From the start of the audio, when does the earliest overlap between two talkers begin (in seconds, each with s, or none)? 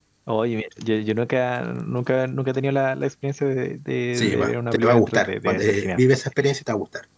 4.2 s